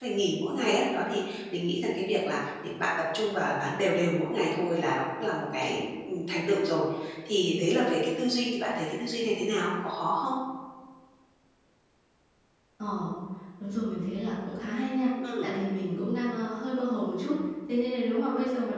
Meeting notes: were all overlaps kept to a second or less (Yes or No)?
Yes